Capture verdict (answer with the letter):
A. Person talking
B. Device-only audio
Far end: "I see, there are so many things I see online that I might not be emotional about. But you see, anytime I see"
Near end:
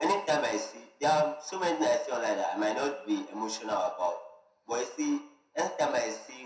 B